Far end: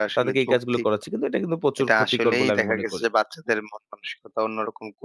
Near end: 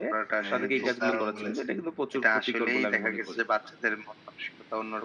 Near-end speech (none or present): present